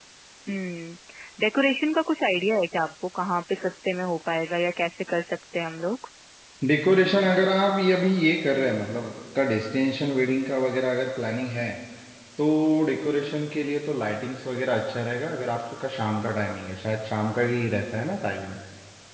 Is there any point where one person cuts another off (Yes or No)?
No